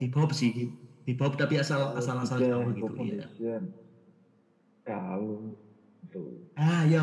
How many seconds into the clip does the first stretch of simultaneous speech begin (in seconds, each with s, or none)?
1.8 s